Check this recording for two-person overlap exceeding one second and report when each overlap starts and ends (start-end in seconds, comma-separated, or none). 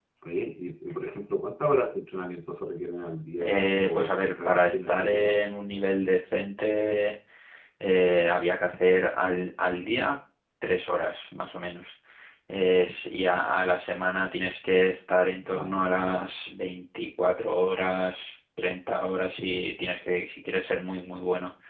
3.4-5.3